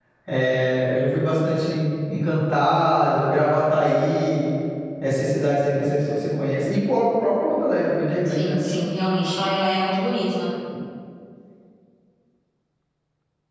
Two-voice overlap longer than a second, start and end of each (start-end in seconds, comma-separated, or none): none